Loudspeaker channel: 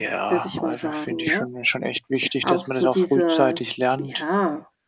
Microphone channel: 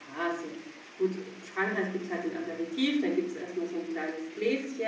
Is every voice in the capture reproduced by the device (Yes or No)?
No